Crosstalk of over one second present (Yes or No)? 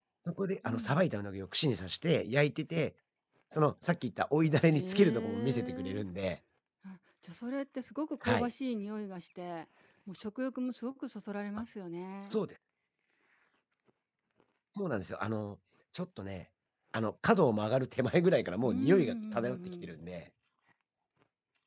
Yes